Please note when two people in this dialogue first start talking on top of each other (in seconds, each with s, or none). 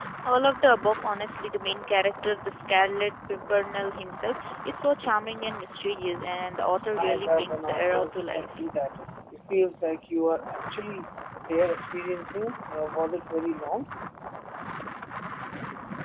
6.8 s